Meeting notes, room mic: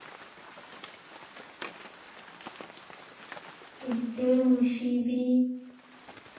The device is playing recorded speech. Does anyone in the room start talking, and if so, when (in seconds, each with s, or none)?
3.9 s